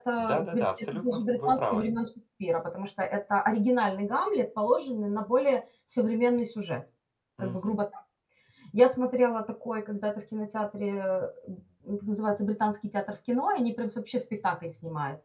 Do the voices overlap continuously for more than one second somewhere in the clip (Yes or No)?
Yes